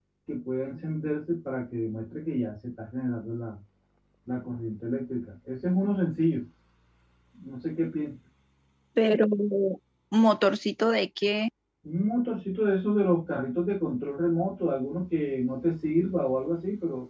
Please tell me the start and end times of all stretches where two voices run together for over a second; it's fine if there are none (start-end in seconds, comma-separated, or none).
none